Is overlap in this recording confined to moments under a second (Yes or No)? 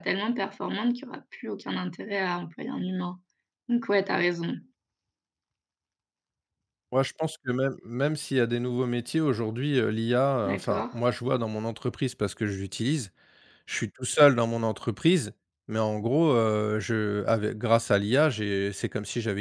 Yes